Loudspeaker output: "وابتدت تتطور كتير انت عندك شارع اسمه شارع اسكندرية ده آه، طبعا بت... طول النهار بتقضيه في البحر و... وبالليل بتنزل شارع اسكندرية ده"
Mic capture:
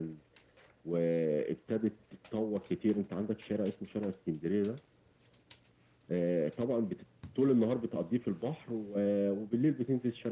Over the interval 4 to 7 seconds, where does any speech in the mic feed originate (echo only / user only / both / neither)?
echo only